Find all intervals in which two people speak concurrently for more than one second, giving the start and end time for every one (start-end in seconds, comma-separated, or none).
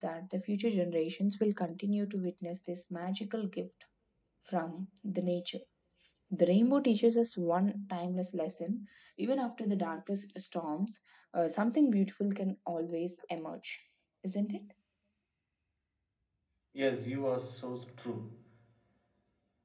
none